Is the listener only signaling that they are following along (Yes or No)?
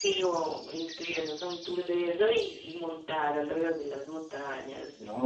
No